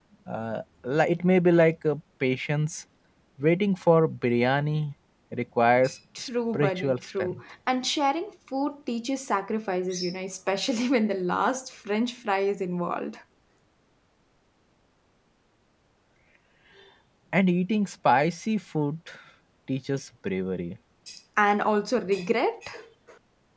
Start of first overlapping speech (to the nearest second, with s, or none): 6 s